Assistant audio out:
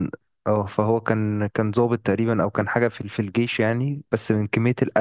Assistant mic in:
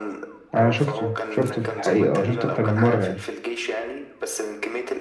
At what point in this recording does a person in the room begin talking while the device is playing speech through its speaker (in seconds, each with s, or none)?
0.5 s